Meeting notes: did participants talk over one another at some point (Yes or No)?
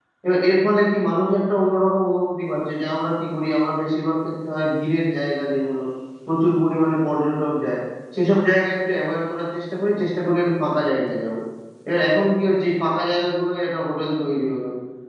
No